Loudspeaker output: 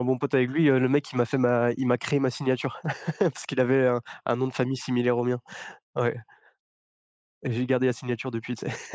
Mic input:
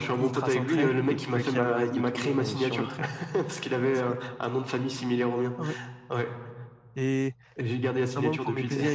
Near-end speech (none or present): present